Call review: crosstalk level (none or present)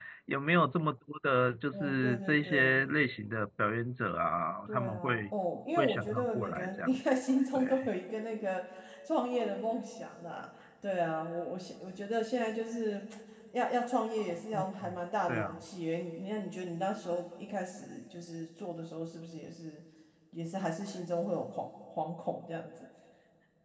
present